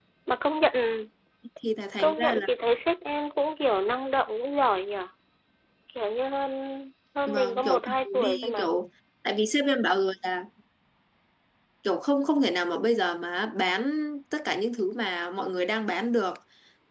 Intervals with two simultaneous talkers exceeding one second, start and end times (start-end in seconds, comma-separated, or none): 7.3-8.6